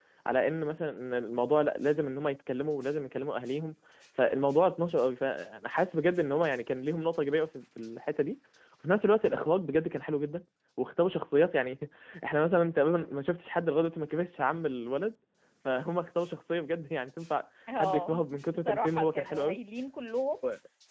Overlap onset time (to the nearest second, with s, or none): 18 s